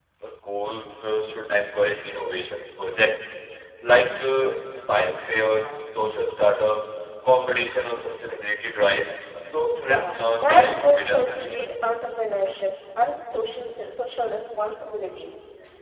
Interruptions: present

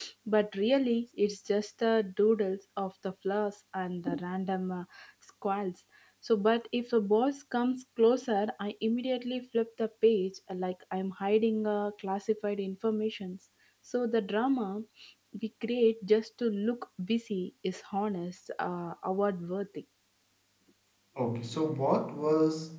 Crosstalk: none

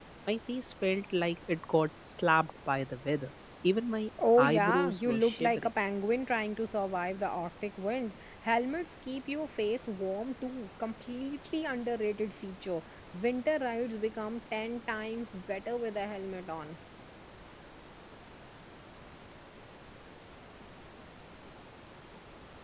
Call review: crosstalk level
present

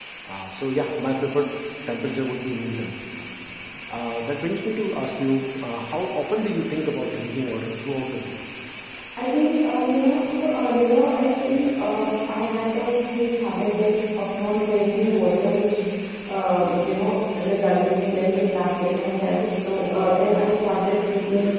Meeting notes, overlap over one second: none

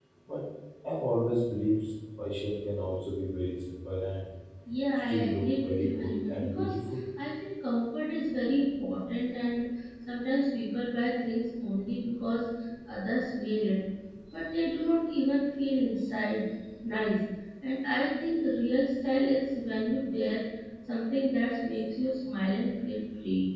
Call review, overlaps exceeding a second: present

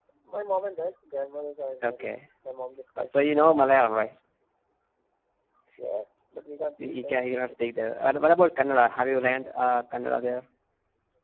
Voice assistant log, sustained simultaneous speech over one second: none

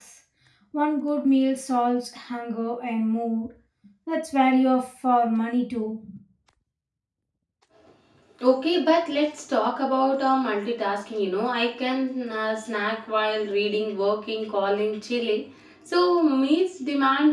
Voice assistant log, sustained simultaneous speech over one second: none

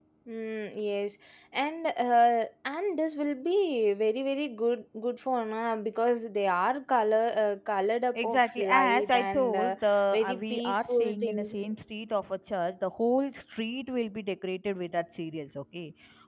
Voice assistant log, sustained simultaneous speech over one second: present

